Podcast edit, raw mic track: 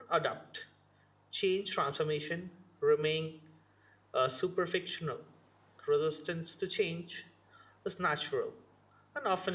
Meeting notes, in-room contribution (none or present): present